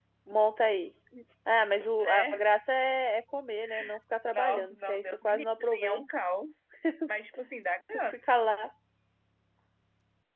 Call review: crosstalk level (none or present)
present